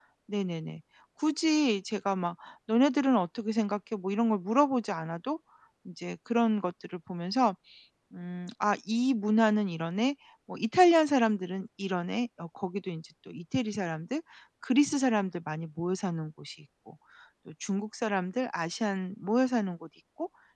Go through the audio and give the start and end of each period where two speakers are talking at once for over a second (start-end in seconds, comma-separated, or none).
none